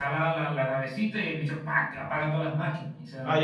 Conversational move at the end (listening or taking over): taking over